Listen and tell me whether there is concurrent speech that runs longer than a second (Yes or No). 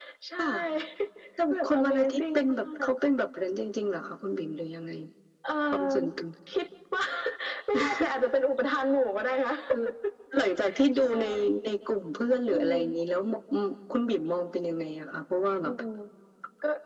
Yes